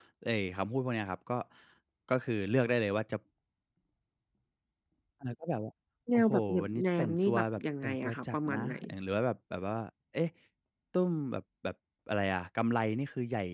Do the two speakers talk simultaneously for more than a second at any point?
Yes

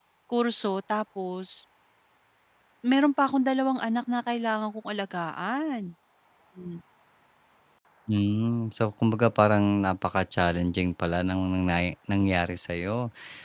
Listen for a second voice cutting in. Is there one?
No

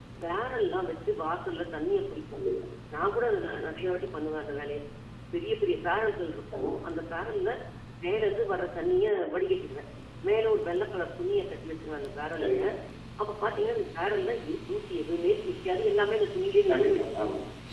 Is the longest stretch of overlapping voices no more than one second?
Yes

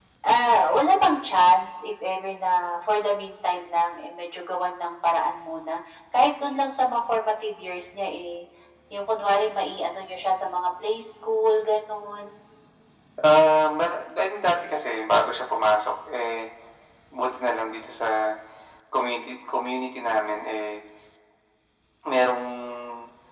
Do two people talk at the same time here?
No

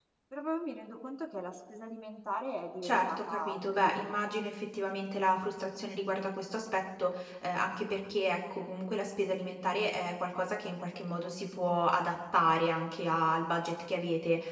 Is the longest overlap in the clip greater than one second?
Yes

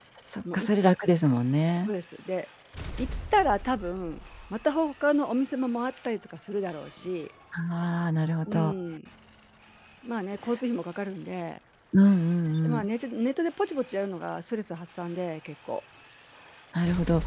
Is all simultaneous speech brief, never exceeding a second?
Yes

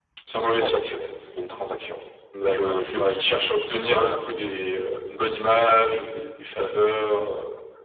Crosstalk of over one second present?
No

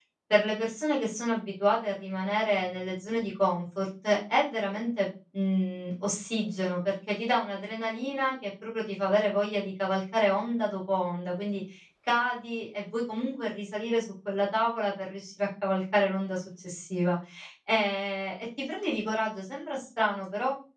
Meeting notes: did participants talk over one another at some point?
No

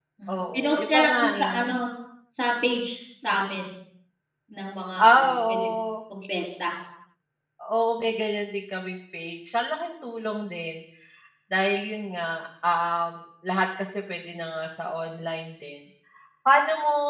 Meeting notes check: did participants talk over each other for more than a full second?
Yes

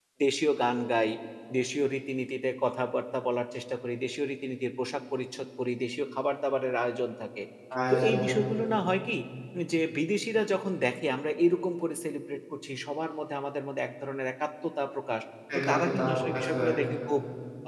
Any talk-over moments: Yes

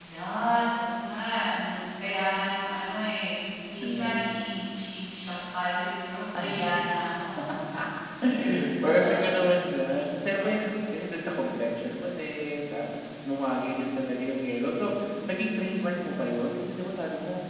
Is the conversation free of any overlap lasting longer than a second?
Yes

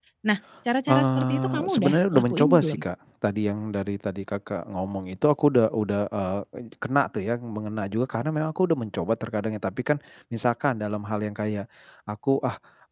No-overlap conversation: No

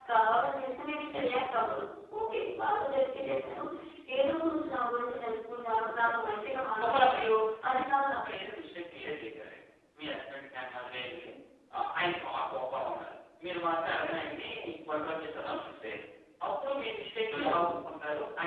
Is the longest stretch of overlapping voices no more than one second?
Yes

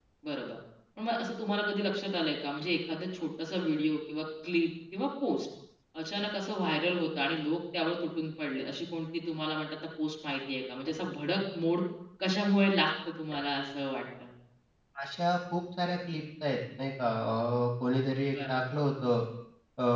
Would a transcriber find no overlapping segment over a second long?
Yes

